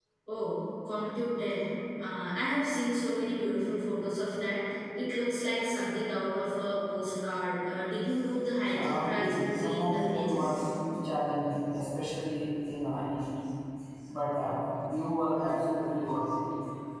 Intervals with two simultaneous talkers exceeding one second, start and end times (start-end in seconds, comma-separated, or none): 8.7-10.6